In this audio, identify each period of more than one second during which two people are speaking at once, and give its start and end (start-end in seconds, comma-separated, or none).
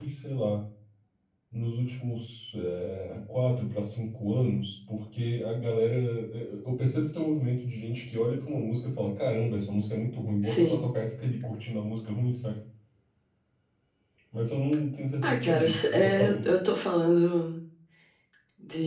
15.2-16.5